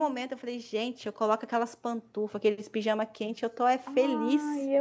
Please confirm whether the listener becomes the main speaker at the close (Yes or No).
Yes